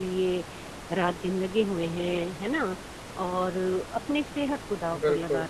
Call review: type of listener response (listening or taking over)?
listening